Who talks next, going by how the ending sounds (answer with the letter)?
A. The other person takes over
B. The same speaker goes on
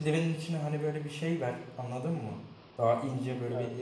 B